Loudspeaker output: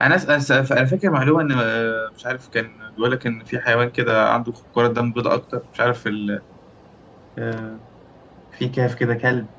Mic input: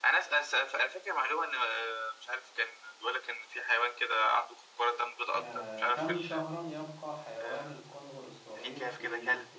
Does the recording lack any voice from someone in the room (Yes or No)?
No